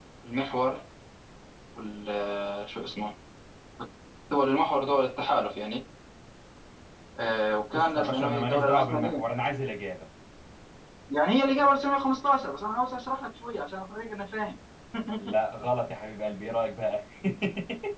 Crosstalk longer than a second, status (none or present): present